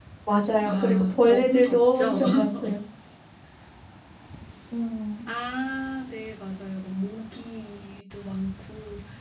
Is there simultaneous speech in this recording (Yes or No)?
Yes